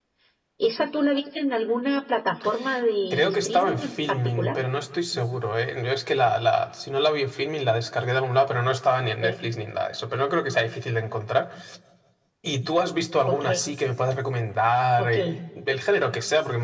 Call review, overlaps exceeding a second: present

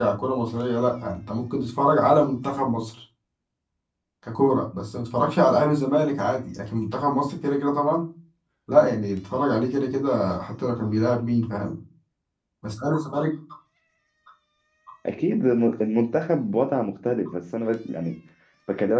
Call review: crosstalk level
none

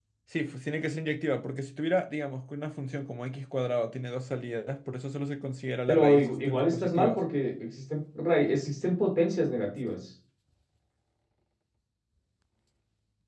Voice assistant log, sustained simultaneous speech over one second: present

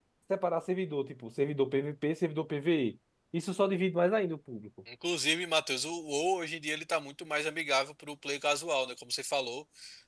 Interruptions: none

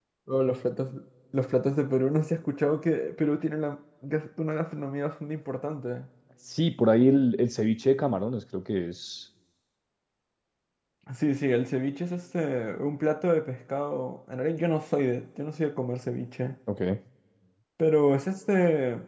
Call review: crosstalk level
none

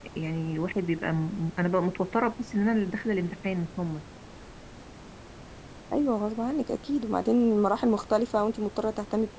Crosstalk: none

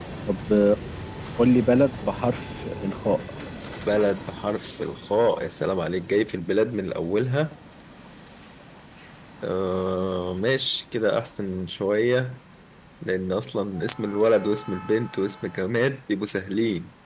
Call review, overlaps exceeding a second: none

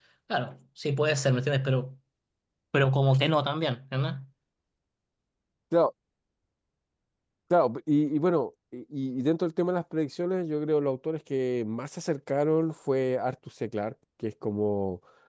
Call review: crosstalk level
none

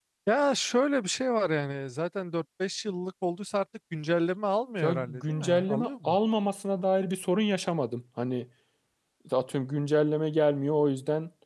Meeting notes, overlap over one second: present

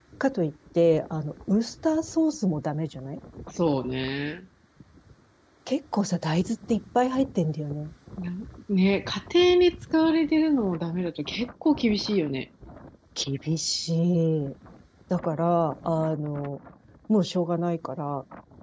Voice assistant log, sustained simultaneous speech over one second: none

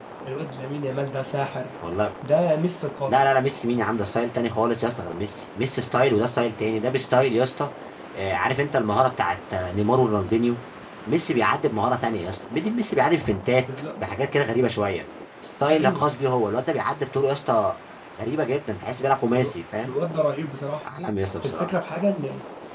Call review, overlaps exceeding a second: none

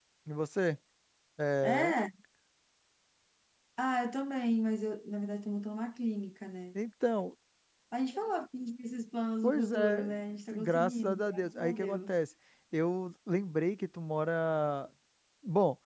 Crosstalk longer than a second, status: present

